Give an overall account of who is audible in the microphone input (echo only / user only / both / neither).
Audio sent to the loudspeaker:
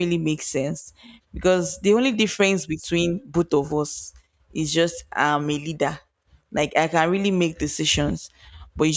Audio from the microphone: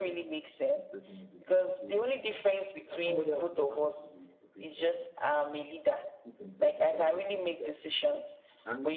both